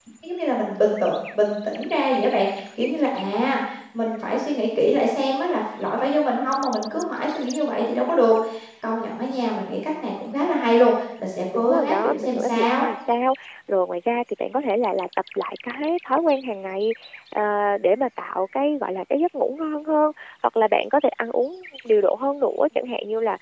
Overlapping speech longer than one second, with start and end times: 11.6-12.8

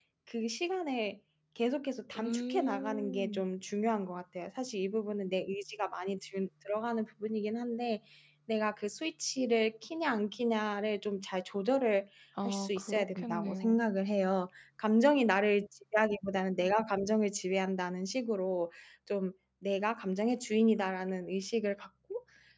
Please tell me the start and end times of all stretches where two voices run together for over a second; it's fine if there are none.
2.2-3.4, 12.4-13.8

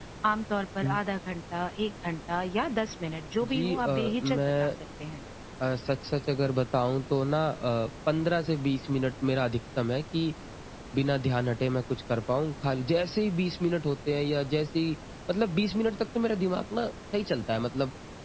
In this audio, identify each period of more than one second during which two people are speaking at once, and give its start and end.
3.4-4.7

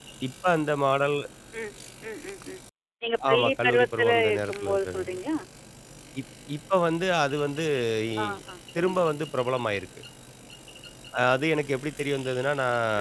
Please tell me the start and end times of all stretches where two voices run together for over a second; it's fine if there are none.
3.3-5.2

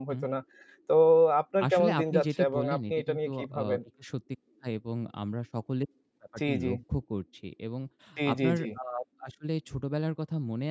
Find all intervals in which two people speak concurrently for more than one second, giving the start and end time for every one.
1.7-3.8

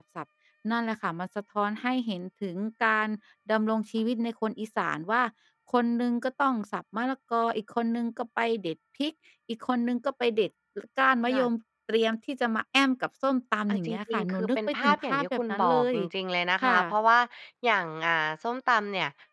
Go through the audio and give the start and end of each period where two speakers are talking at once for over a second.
13.7-15.9

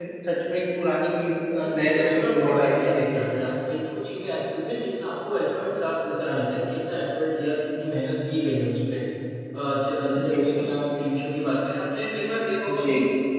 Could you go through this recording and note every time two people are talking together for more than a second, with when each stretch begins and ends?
1.6-3.2

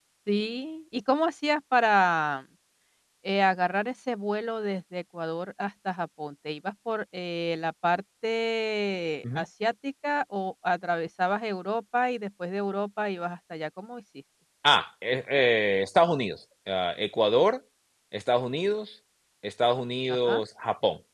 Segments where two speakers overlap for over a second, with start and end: none

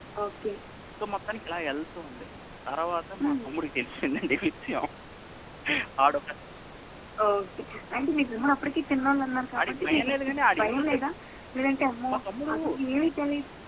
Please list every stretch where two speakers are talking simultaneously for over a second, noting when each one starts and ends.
9.6-11.0

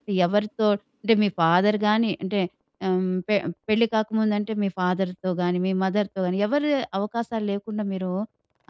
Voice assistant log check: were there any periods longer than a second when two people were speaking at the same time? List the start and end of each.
none

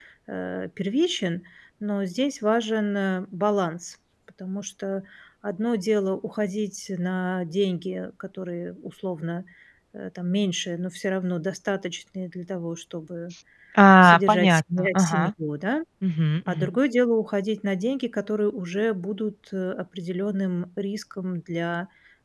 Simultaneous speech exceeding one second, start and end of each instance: 14.0-15.3

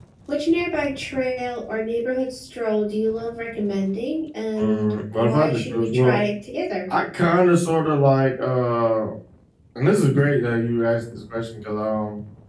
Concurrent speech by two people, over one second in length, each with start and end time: 4.6-6.2

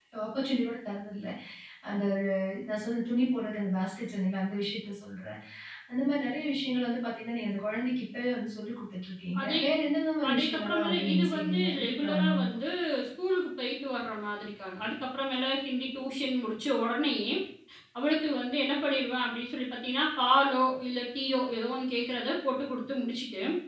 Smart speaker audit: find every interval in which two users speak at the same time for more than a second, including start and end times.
10.3-12.6

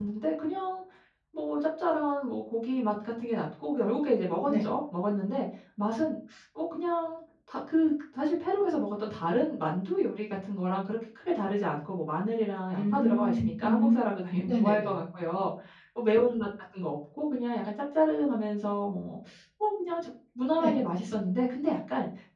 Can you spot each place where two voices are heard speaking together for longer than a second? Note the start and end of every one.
12.8-14.0

